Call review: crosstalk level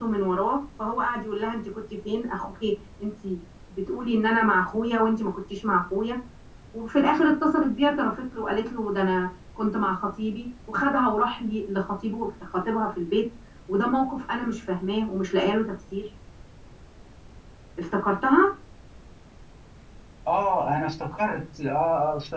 none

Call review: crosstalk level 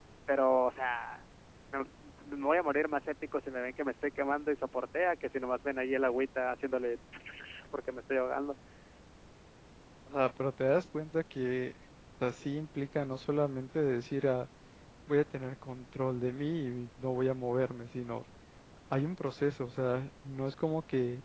none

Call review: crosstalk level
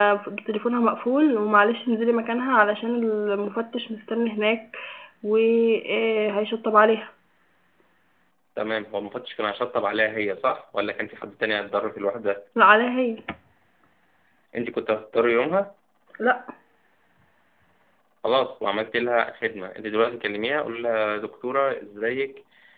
none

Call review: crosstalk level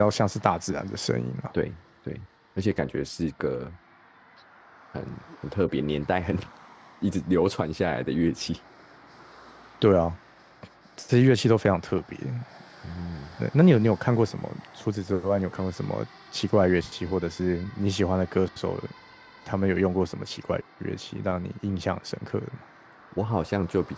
none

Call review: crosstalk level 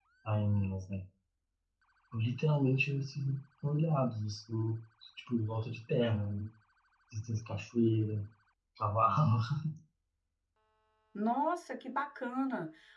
none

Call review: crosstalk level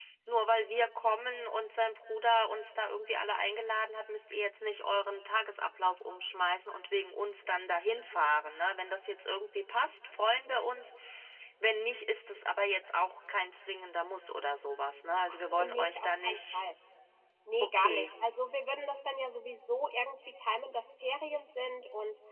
present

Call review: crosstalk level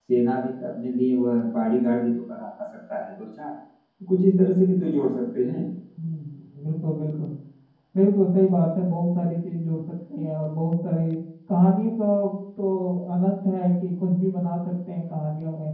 none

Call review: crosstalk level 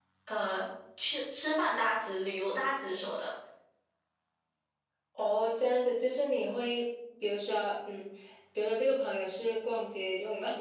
none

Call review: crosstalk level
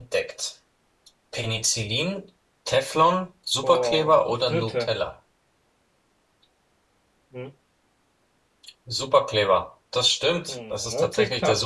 present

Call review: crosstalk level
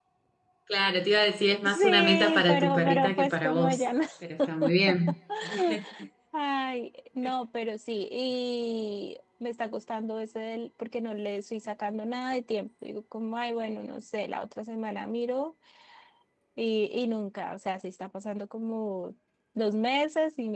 present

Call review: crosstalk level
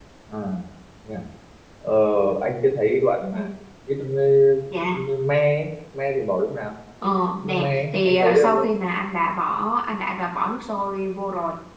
present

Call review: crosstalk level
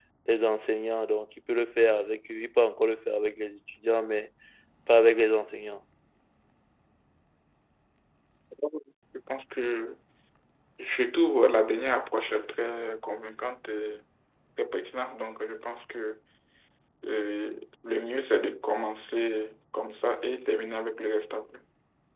none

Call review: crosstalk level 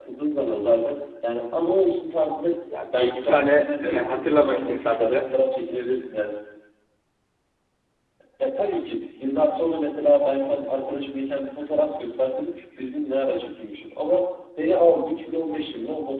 present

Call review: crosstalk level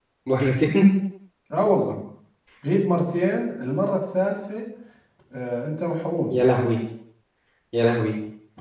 none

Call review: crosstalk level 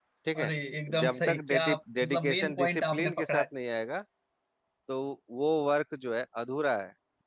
present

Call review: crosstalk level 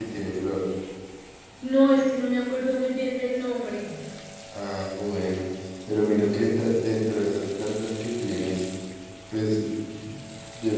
none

